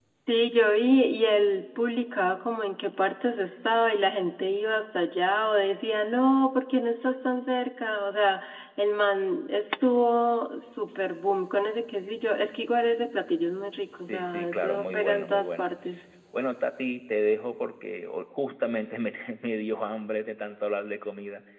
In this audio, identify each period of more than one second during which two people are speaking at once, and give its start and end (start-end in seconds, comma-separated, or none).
14.1-15.7